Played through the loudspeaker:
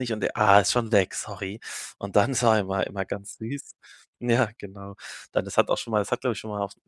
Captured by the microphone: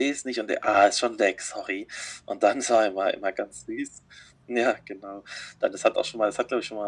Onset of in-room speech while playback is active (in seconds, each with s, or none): none